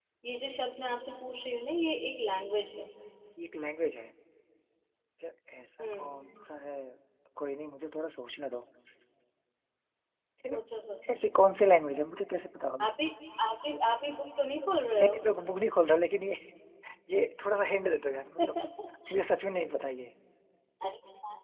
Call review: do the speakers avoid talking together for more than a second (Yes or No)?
Yes